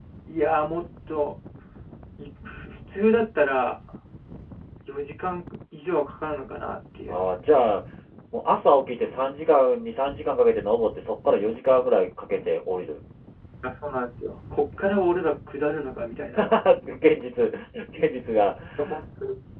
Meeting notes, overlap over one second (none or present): none